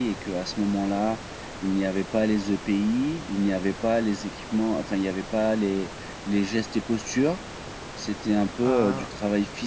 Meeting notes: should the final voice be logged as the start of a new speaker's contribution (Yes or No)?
No